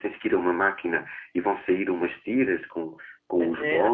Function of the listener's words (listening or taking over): taking over